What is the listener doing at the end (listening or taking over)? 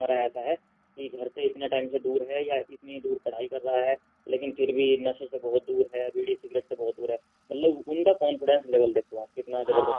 taking over